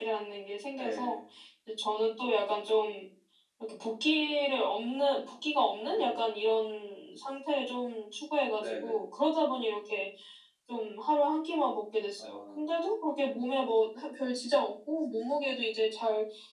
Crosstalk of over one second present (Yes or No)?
No